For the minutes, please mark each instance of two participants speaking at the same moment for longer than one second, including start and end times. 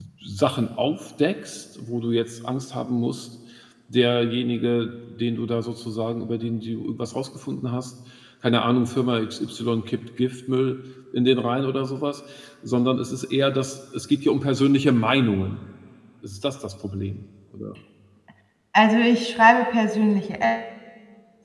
none

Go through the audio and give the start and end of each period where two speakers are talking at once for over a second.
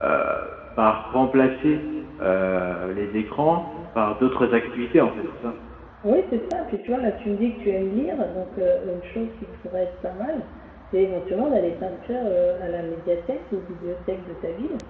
none

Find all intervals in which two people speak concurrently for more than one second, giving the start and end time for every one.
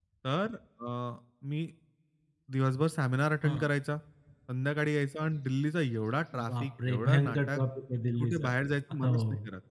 6.3-7.6

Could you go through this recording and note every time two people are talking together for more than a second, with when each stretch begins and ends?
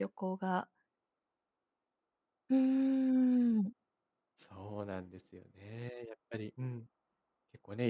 none

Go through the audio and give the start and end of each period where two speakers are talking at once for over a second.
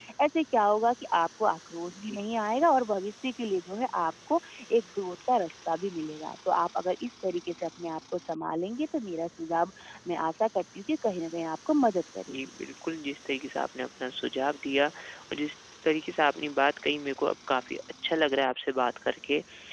none

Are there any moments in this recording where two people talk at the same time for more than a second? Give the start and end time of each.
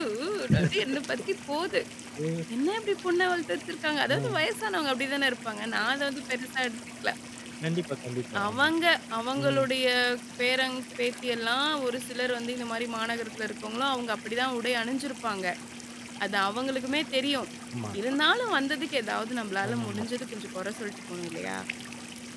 none

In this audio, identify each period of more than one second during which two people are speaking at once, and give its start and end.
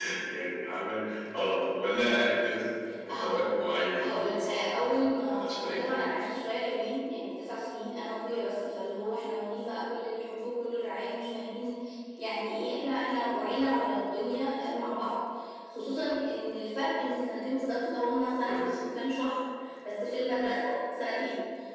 4.0-6.0

